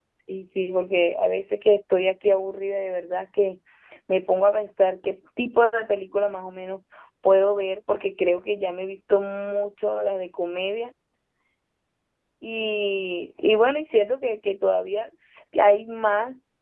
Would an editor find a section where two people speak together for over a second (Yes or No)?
No